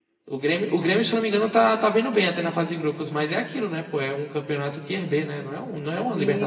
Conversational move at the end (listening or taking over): taking over